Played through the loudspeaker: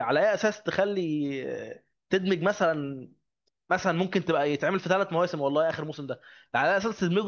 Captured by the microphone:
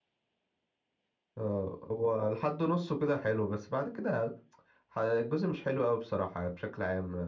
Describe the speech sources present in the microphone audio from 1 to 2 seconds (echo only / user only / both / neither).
user only